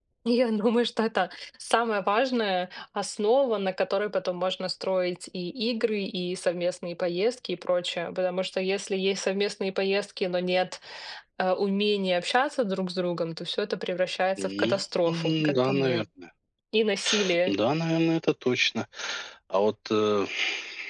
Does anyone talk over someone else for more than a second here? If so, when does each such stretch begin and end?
14.4-16.0

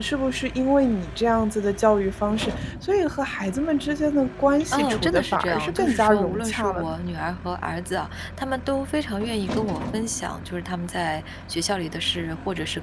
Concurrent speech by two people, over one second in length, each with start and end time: 4.7-6.9

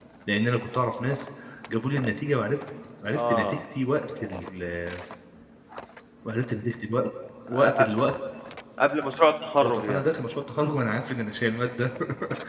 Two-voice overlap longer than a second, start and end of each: none

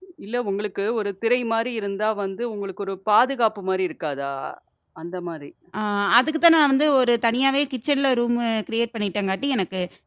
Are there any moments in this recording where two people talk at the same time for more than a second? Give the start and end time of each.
none

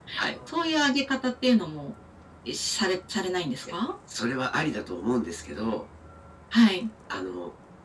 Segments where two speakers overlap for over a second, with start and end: none

